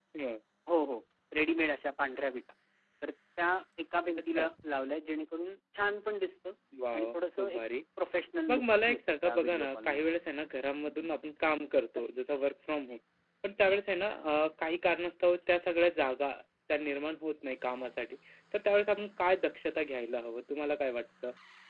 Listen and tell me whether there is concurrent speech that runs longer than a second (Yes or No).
Yes